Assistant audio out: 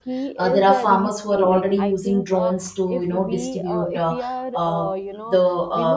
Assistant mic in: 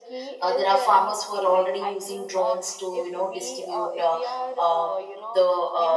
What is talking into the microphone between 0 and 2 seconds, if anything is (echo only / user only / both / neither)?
echo only